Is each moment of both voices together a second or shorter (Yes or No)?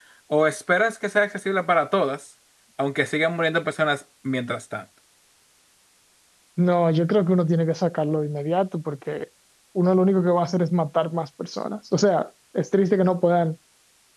Yes